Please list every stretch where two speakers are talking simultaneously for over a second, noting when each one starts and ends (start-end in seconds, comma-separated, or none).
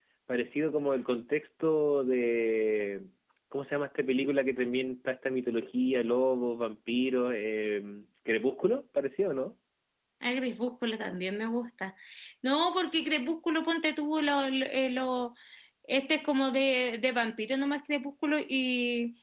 none